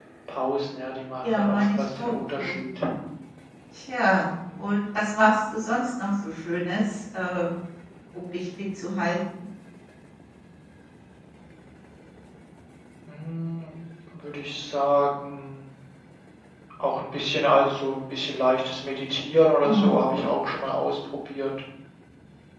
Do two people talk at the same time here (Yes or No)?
Yes